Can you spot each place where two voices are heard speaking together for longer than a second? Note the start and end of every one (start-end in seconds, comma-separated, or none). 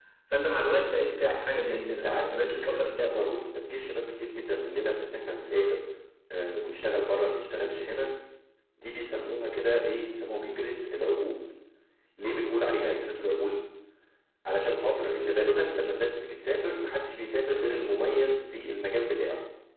1.7-3.1